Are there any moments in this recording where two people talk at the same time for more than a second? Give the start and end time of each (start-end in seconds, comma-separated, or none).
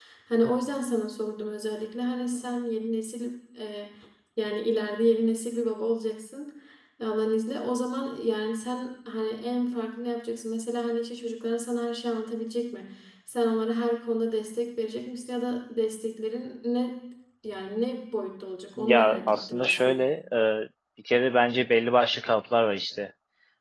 18.8-20.0